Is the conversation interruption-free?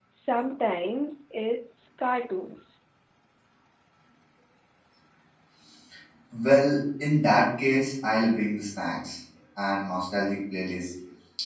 Yes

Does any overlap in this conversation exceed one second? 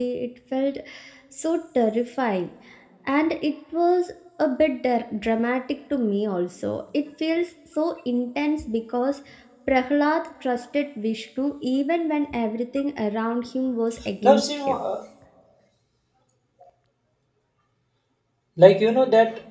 No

